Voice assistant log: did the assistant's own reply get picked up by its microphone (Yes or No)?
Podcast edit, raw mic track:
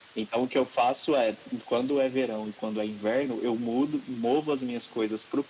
Yes